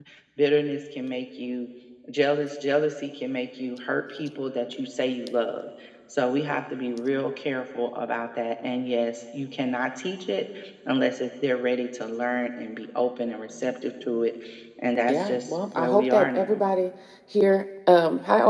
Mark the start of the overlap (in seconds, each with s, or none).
15.1 s